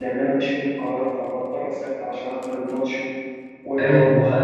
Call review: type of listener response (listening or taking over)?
taking over